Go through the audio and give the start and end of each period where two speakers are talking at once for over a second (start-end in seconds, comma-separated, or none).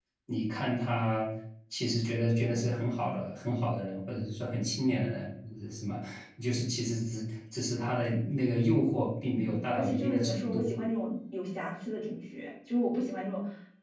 9.2-10.7